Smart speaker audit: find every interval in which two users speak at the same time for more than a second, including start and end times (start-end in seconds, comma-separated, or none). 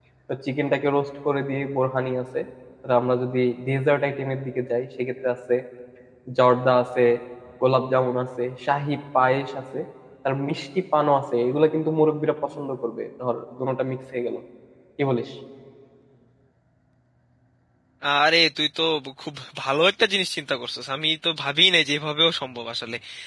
none